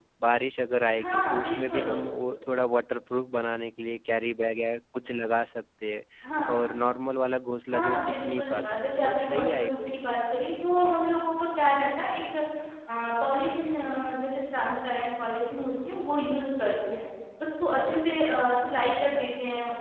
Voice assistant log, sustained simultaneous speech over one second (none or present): present